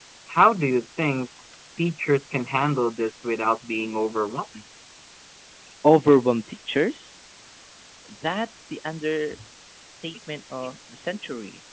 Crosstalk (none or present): none